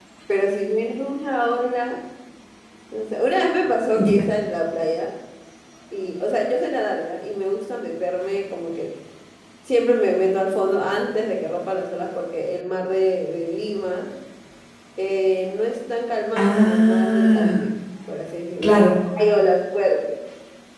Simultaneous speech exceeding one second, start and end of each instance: 16.4-17.6

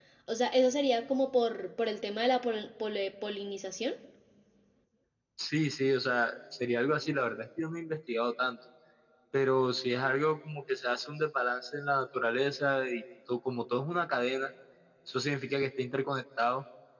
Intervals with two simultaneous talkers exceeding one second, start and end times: none

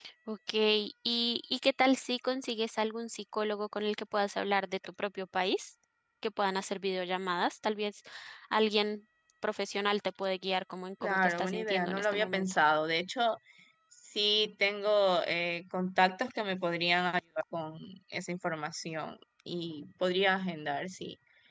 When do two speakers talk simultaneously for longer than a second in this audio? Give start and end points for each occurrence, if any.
11.0-12.4

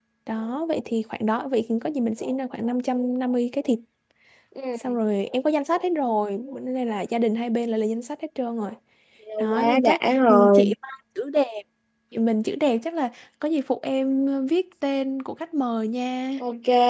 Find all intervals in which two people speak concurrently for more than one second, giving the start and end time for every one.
9.5-10.7

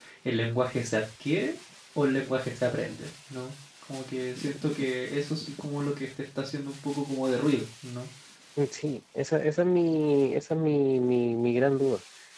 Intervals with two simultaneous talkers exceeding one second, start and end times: none

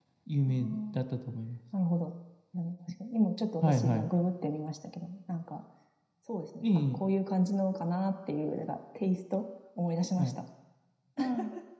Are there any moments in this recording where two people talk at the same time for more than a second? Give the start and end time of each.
none

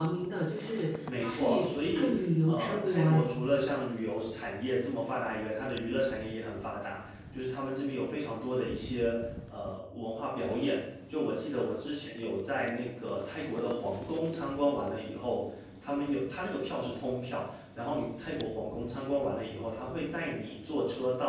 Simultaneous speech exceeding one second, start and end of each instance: 1.2-3.3

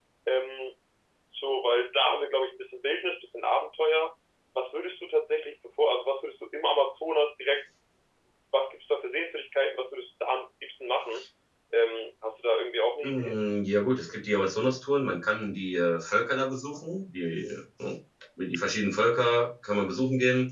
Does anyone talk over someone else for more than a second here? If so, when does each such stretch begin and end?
none

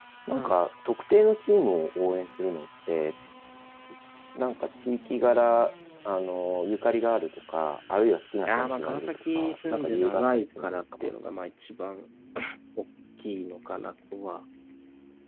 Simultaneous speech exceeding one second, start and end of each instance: 8.4-11.1

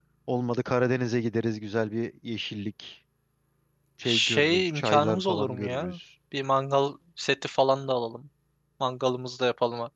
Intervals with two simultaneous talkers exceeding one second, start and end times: 4.0-6.0

